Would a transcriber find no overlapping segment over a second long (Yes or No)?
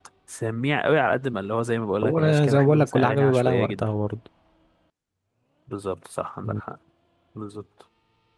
No